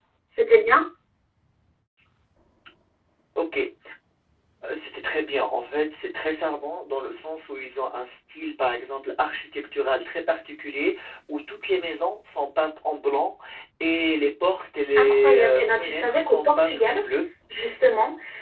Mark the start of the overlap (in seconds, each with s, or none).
14.9 s